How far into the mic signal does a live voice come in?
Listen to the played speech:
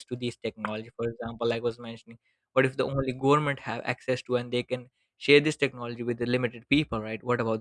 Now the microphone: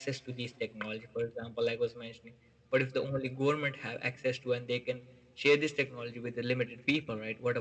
none

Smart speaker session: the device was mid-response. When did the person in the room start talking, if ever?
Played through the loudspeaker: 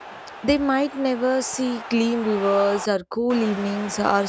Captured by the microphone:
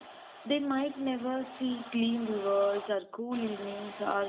none

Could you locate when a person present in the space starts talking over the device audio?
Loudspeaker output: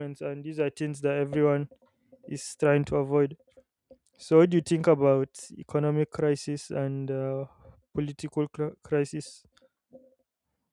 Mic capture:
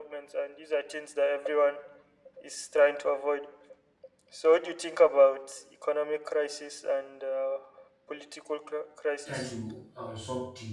9.2 s

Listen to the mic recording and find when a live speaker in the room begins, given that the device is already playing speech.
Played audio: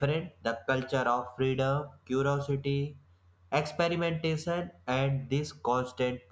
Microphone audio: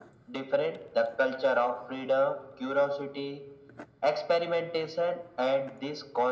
none

